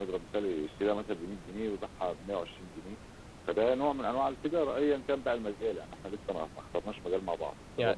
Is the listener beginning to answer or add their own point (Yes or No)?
Yes